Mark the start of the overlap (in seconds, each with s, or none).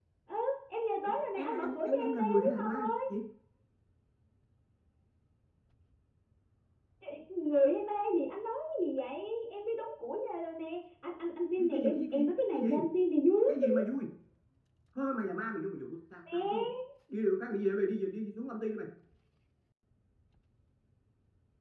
1.4 s